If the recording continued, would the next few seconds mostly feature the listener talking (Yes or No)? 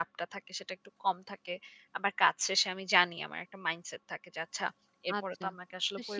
Yes